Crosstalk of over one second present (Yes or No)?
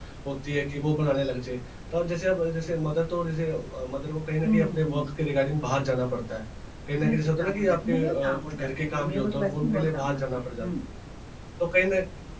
Yes